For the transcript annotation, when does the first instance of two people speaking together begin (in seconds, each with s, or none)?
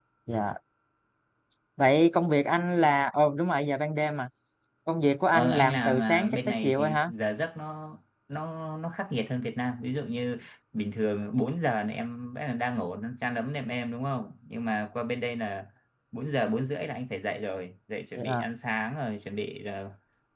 5.3 s